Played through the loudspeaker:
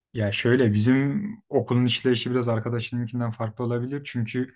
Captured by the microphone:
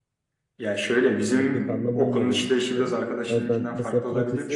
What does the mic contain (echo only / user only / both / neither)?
both